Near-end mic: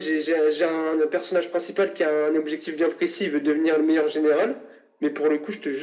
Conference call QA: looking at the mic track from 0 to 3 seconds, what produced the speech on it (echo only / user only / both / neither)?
echo only